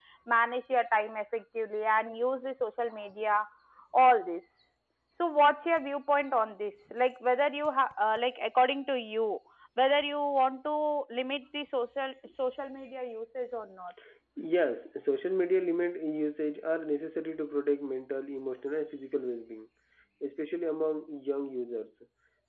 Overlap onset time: none

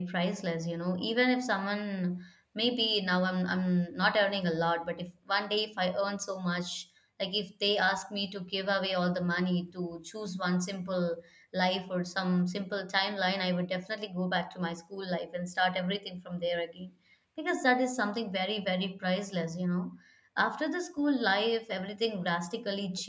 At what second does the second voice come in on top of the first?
none

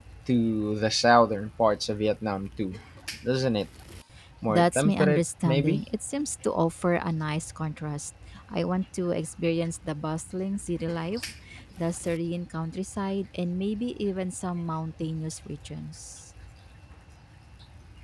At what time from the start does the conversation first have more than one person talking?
4.5 s

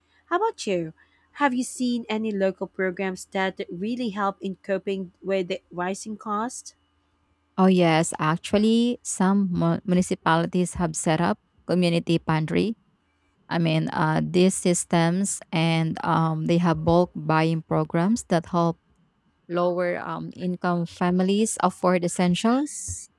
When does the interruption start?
none

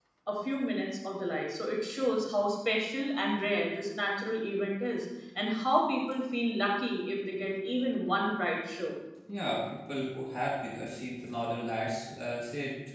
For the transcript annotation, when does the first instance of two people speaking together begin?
none

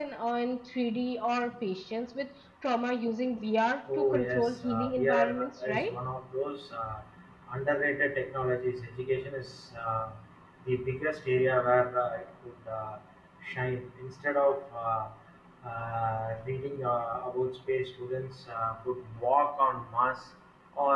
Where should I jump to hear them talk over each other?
3.9 s

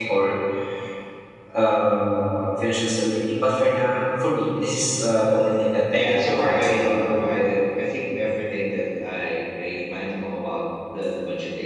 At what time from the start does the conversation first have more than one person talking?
5.9 s

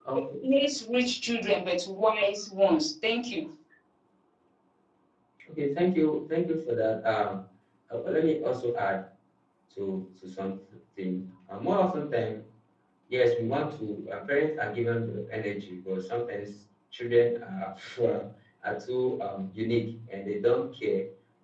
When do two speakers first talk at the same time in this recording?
none

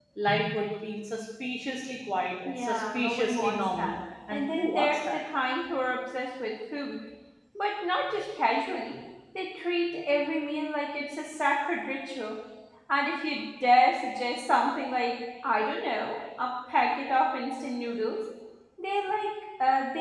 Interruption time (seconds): 2.5 s

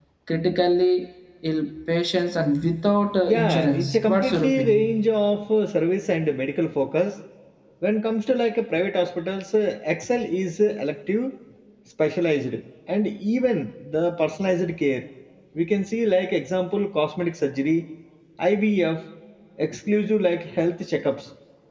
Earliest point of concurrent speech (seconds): 3.2 s

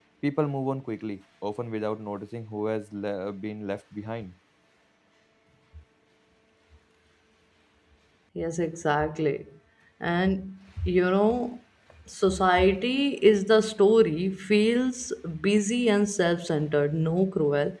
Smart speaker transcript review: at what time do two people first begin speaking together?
none

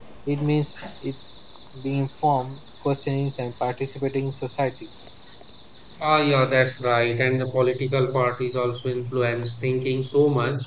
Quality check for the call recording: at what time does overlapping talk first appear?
none

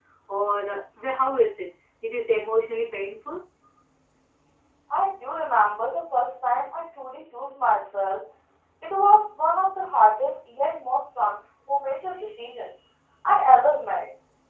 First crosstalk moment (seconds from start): none

